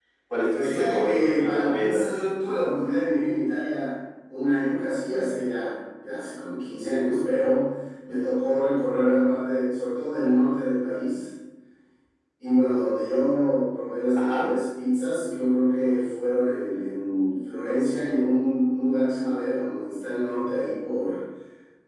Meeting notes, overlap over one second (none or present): present